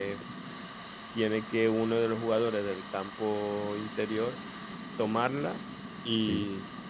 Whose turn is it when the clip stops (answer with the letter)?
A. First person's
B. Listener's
A